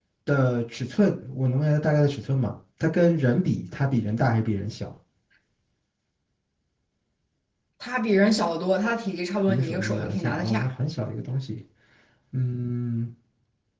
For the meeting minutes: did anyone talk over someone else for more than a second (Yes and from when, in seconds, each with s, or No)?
Yes, from 9.5 s